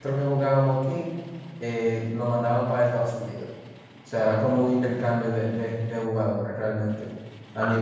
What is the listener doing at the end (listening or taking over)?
listening